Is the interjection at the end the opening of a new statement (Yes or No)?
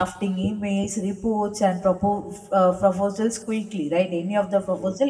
No